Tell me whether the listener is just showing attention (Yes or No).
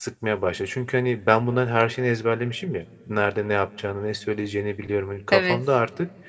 Yes